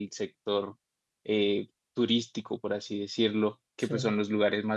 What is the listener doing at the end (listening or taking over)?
listening